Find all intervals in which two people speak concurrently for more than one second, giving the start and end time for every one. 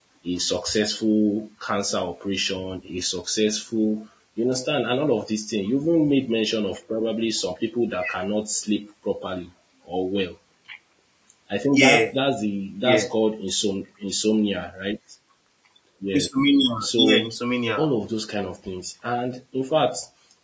none

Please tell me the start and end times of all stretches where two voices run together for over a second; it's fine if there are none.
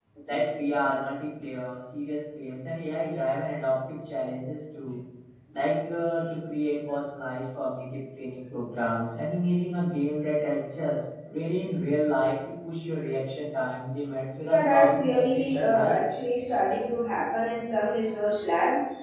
14.4-16.0

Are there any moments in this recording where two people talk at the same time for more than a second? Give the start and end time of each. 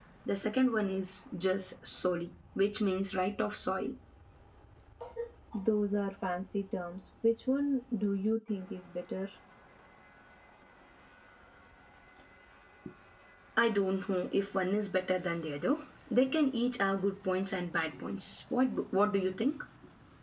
none

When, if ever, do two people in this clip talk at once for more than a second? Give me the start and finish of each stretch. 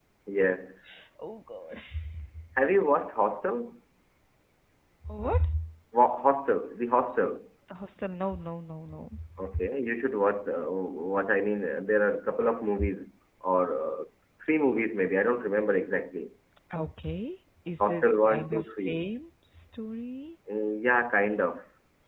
17.8-19.0

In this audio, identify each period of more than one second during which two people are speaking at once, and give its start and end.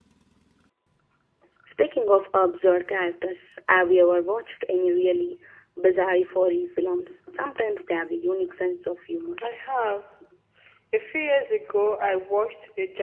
none

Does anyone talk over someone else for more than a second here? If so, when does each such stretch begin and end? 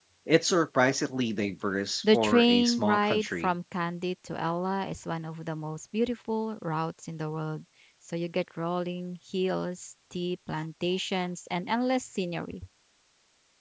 2.1-3.5

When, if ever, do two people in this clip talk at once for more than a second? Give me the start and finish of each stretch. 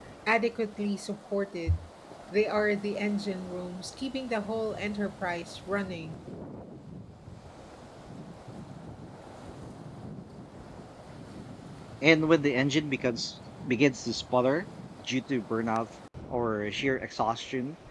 none

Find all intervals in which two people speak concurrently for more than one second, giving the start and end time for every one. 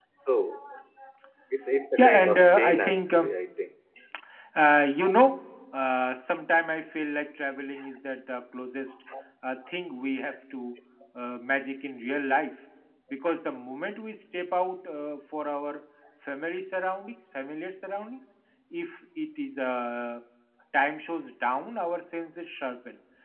2.0-3.3

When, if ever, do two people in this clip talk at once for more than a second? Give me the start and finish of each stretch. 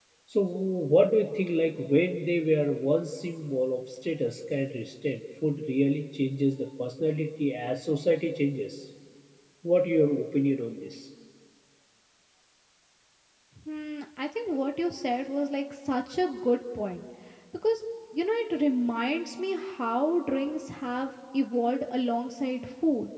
none

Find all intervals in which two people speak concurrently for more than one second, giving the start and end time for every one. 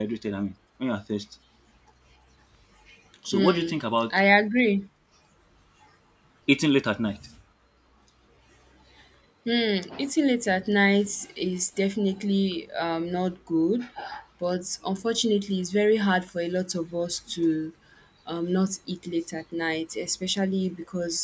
none

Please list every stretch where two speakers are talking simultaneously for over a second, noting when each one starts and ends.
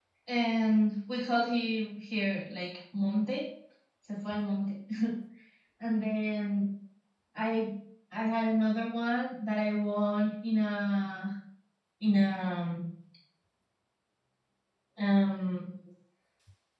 none

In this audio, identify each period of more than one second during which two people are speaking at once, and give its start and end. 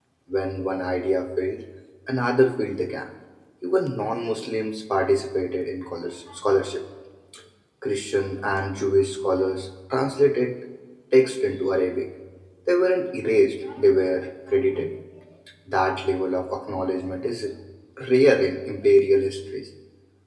none

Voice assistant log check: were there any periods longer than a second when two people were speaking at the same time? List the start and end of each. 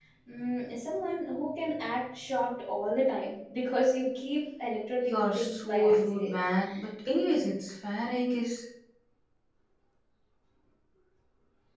5.0-6.3

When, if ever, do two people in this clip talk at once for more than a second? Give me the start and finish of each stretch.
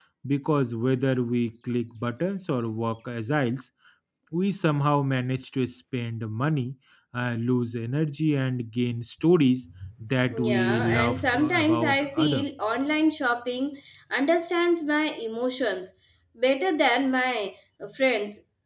10.4-12.5

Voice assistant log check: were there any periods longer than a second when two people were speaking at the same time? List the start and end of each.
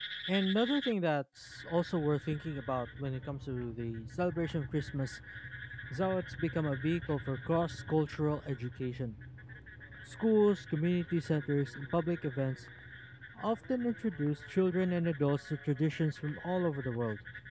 none

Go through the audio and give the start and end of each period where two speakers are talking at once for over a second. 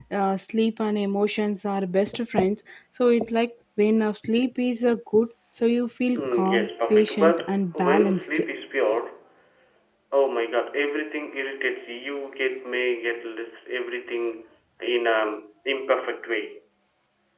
6.1-8.4

